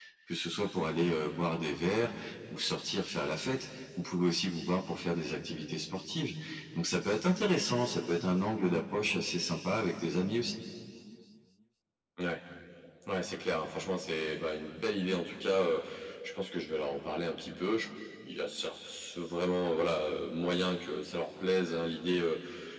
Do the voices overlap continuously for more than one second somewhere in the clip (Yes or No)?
No